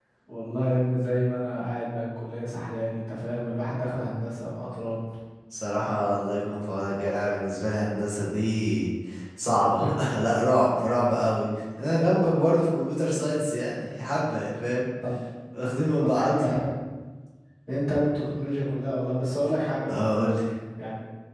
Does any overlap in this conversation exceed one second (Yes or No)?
No